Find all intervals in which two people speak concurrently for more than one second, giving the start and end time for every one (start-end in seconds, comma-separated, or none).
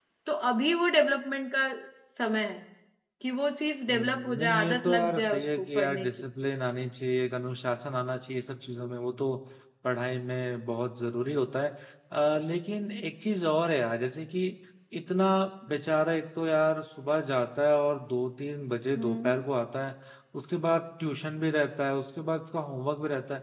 3.9-6.2